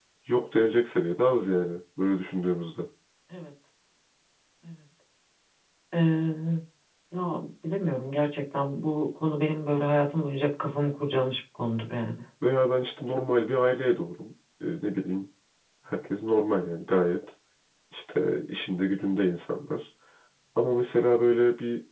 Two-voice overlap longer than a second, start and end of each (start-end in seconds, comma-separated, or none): none